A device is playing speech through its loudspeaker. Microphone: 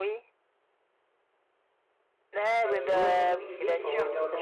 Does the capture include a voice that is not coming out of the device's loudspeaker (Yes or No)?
Yes